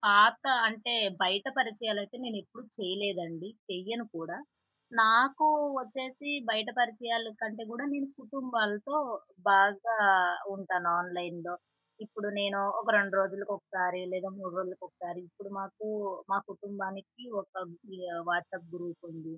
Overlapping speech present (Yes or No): No